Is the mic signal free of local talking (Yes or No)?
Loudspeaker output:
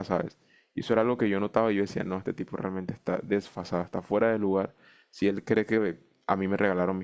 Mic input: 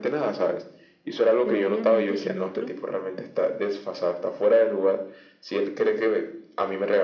No